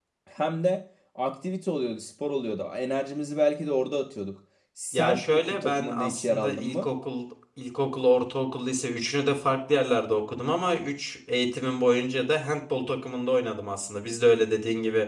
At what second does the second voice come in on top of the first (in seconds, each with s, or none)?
4.9 s